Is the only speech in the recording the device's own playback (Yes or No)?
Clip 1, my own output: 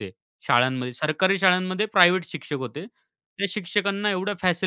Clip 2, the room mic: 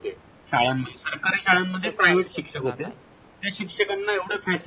No